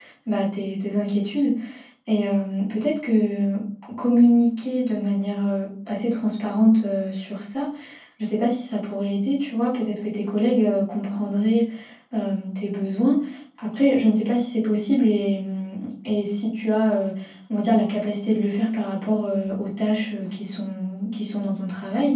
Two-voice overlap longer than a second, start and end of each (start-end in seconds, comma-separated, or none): none